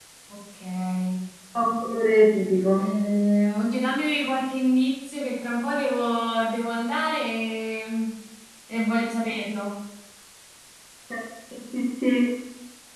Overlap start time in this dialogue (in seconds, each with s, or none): none